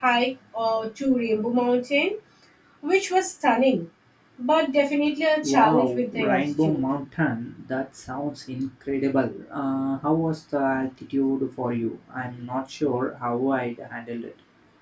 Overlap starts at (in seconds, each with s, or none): 5.4 s